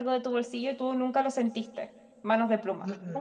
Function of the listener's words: taking over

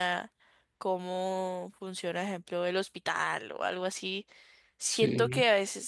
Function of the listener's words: listening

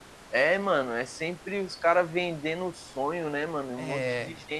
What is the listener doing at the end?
listening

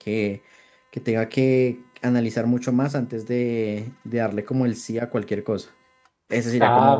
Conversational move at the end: taking over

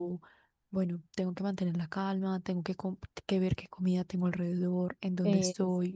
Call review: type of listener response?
listening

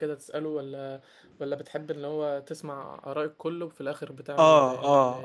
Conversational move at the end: taking over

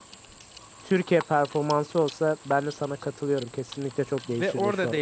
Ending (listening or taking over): taking over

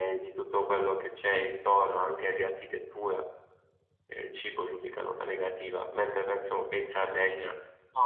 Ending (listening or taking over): taking over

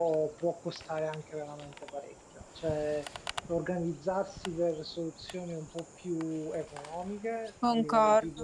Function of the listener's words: listening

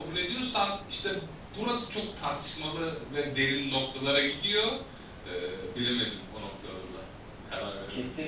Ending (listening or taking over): taking over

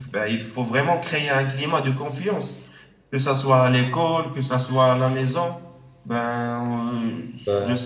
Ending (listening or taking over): listening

